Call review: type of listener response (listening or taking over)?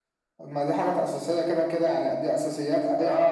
taking over